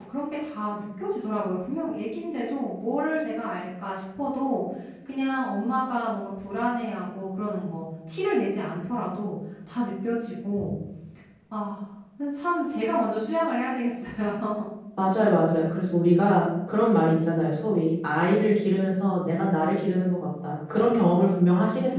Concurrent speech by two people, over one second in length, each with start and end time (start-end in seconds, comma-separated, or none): none